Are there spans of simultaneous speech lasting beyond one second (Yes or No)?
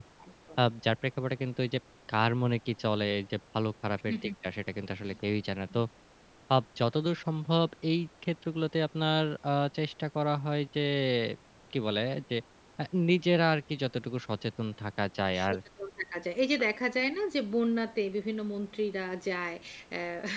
No